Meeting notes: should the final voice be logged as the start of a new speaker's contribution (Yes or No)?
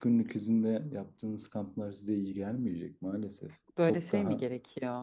Yes